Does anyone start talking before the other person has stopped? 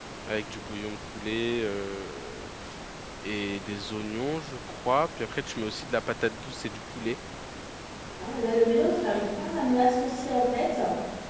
No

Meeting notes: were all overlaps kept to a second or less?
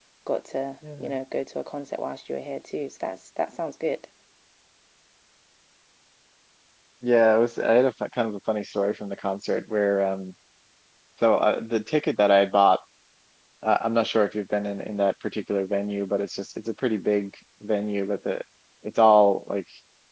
Yes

